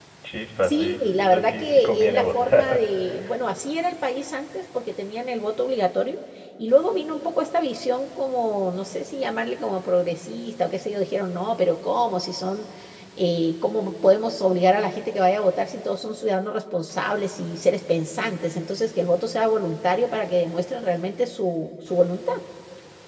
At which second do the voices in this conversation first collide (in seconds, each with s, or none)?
0.6 s